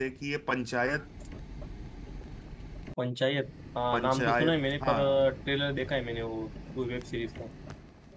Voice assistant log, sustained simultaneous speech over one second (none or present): present